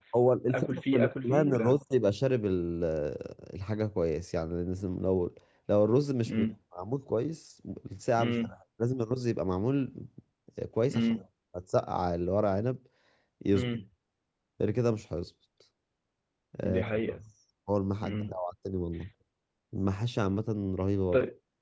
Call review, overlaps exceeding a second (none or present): present